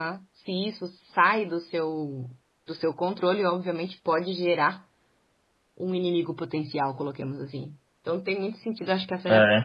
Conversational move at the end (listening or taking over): listening